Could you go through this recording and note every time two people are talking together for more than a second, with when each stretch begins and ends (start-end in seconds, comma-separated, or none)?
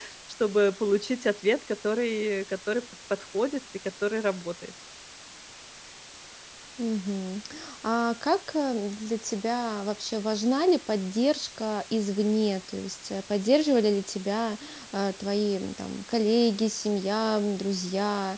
none